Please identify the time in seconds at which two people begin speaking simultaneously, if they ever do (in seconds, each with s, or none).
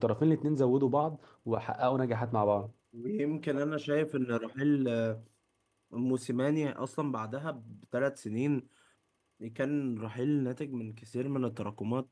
none